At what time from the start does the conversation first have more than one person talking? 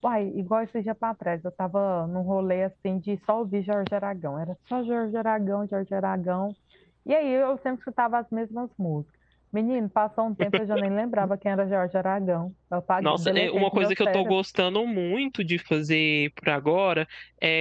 13.0 s

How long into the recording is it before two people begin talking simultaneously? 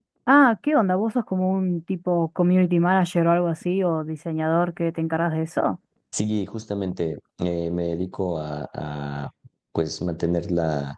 none

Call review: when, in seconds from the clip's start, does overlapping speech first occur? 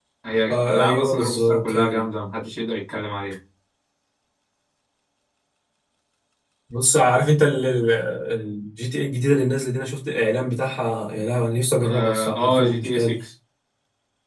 0.5 s

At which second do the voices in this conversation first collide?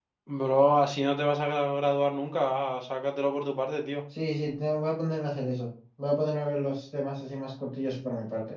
none

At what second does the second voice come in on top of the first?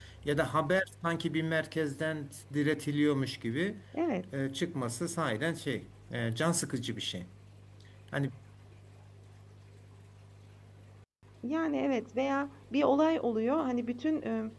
none

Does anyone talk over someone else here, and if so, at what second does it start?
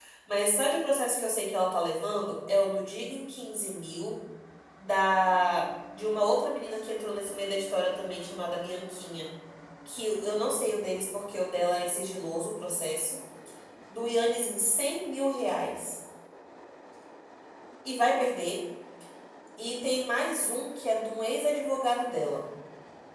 none

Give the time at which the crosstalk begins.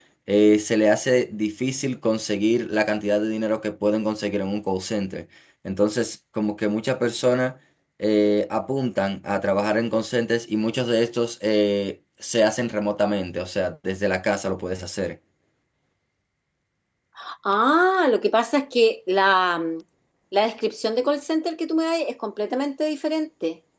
none

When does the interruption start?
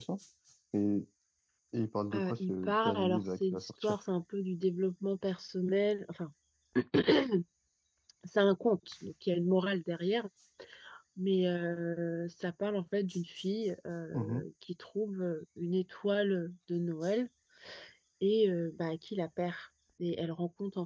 2.1 s

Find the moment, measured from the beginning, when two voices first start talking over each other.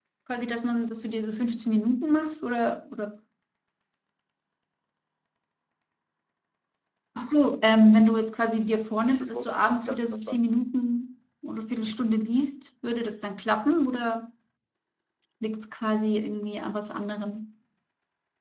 9.1 s

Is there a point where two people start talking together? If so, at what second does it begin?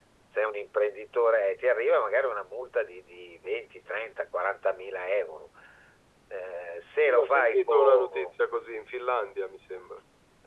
7.1 s

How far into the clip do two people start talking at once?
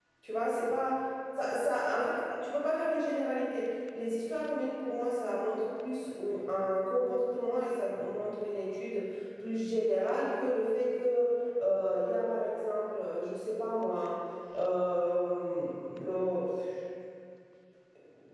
none

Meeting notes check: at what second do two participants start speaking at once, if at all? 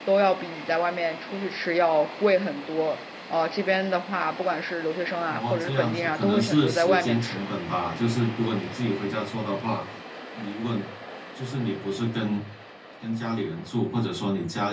5.3 s

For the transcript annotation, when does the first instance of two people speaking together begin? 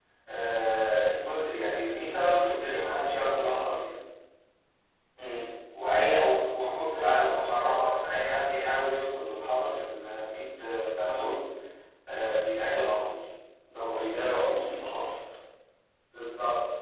none

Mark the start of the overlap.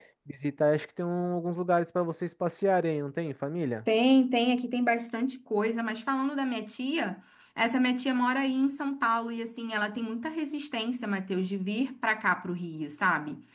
none

